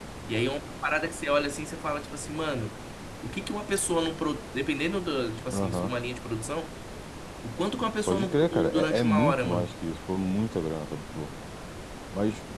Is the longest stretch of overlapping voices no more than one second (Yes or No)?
No